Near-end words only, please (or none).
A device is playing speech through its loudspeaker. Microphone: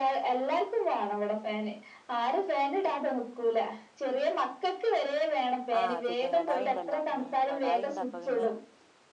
ആ ചിക്കൻ കടായി ഇണ്ടല്ലോ ഉം കടായി ഇണ്ട് അപ്പോ പിന്നെ